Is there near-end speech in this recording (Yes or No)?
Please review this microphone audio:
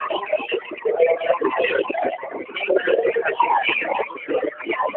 Yes